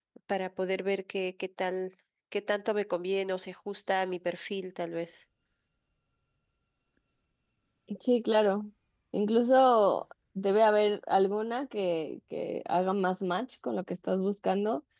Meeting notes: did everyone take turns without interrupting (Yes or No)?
Yes